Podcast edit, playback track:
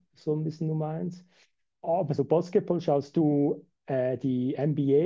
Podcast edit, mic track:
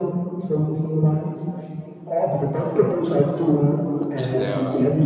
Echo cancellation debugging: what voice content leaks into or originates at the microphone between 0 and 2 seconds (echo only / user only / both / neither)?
echo only